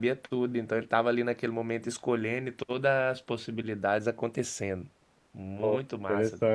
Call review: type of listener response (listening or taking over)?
taking over